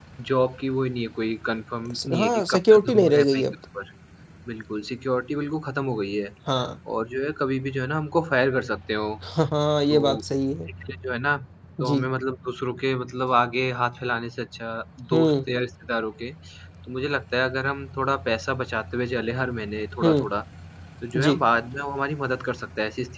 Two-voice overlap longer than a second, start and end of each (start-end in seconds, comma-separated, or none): 2.1-3.5